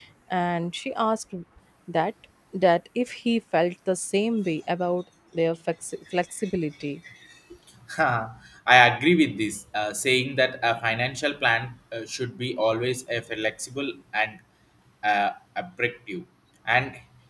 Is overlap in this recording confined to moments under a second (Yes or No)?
Yes